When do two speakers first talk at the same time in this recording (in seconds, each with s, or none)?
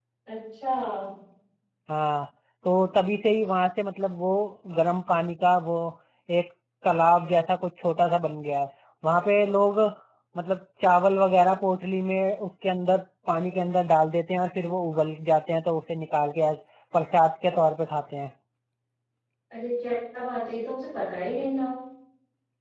none